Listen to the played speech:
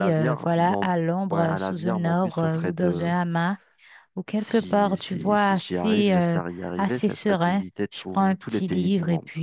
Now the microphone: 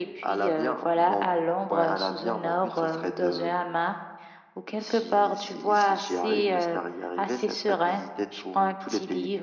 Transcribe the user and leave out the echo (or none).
none